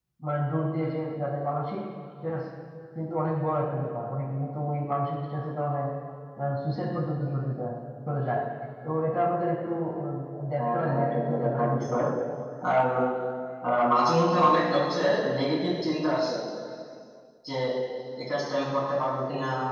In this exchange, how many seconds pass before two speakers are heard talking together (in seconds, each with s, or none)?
10.6 s